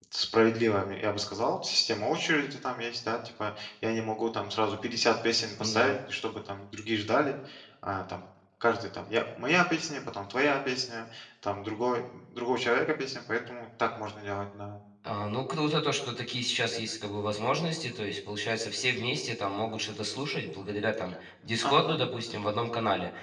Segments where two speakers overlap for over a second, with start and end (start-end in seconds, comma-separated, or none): none